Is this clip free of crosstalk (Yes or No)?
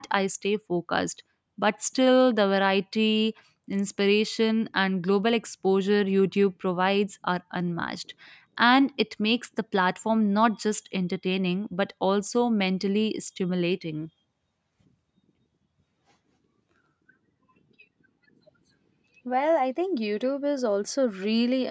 Yes